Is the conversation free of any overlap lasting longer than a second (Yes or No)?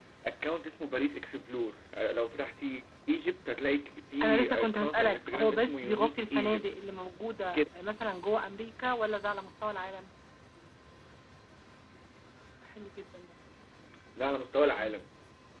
No